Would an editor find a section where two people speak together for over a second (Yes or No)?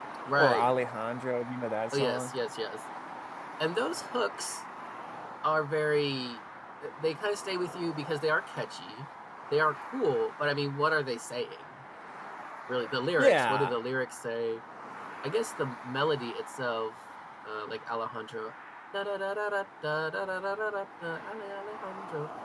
No